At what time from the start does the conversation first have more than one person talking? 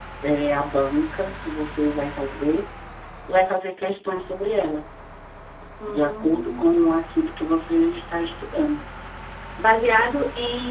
6 s

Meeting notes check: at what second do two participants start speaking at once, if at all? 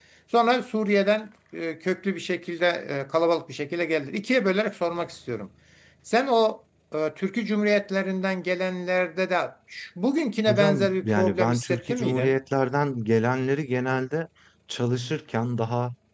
10 s

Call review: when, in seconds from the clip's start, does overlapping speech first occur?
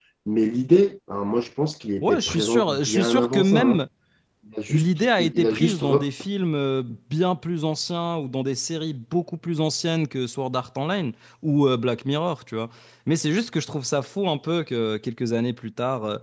2 s

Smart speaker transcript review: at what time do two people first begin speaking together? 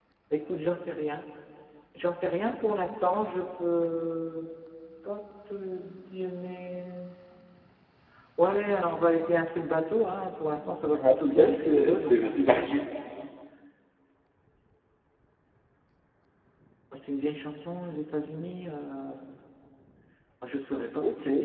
11 s

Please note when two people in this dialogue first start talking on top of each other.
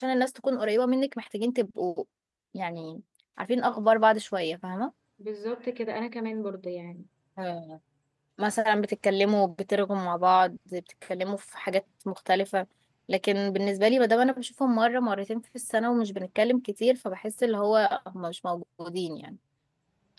none

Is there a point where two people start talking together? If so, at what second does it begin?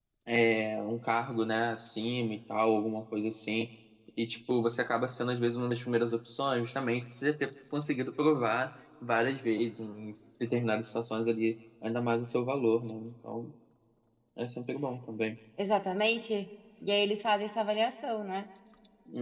none

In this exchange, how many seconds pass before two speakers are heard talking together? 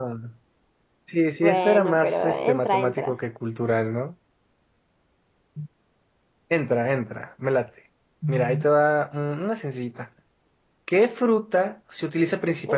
1 s

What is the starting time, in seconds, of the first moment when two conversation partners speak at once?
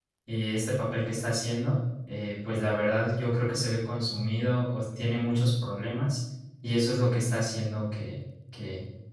none

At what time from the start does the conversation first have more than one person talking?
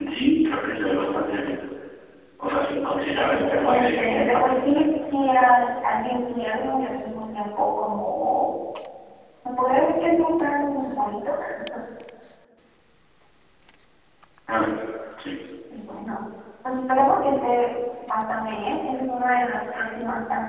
3 s

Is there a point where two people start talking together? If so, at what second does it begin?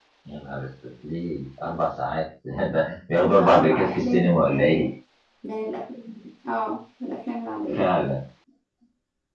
3 s

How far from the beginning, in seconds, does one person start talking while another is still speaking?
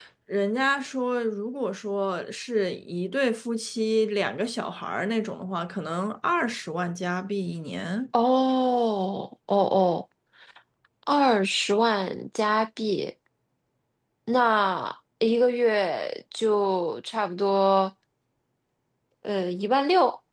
none

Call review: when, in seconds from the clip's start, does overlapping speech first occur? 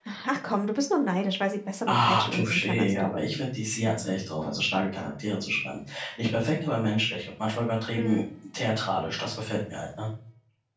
2 s

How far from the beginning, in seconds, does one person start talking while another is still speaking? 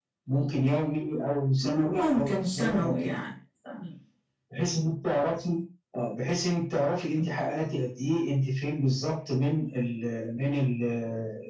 2 s

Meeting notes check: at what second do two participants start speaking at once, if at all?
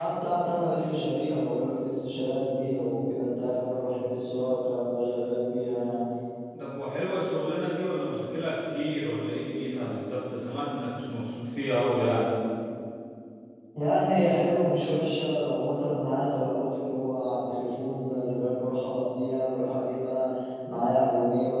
none

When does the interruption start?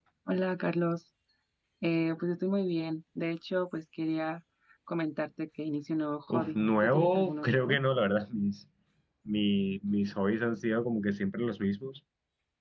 6 s

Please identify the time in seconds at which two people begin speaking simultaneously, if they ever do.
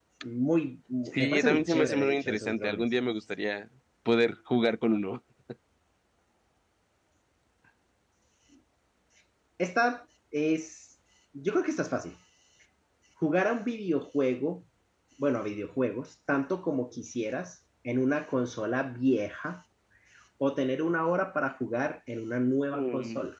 1 s

